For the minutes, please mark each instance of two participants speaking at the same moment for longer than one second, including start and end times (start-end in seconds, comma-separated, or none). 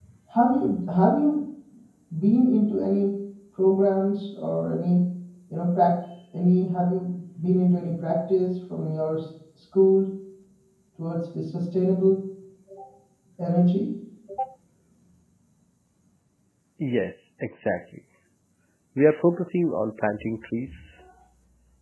none